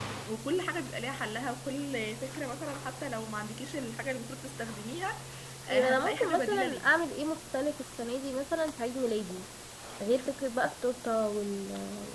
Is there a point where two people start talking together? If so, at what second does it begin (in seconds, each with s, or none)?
5.7 s